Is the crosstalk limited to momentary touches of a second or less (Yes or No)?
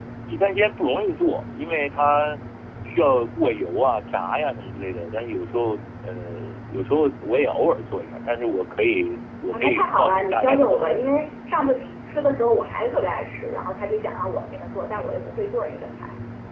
No